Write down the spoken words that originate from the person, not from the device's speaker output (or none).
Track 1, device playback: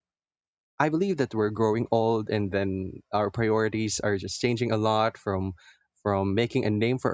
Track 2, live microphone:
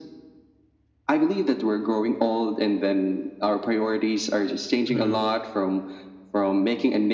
mm,